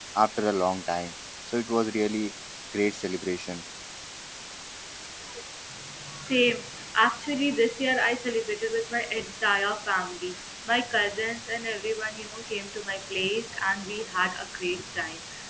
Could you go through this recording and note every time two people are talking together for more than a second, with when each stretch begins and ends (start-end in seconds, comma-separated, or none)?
none